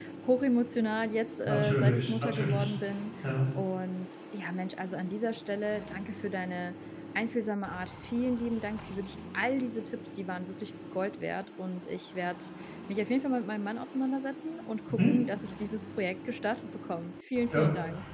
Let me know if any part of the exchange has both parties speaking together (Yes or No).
Yes